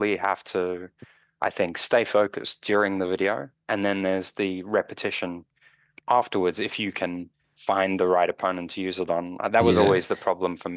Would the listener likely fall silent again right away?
Yes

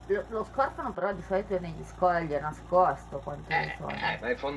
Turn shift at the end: Yes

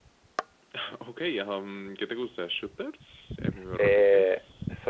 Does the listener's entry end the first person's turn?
Yes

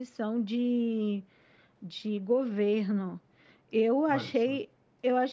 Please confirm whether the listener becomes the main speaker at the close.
No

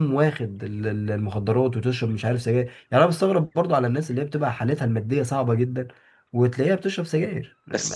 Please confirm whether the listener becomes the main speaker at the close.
Yes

